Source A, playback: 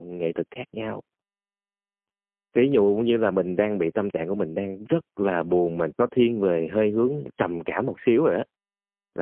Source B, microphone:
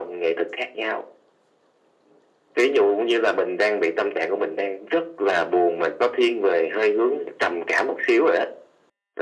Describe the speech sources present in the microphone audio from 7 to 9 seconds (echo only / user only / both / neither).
echo only